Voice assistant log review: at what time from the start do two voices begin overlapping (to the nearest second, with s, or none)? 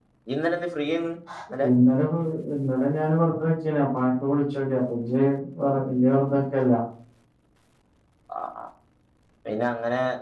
none